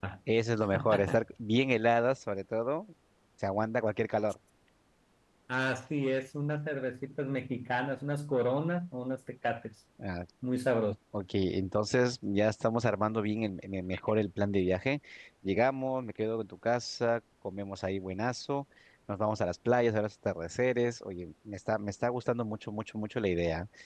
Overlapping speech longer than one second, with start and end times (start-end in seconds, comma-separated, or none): none